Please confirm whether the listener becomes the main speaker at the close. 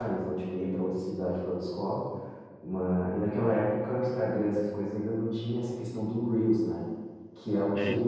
No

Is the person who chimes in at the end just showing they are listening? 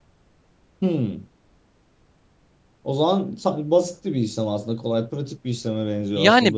No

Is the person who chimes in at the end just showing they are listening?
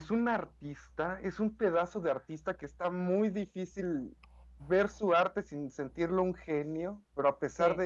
Yes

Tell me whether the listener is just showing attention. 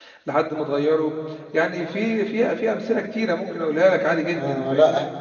No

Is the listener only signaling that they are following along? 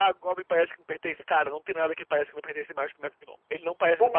No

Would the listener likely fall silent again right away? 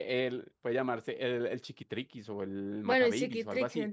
No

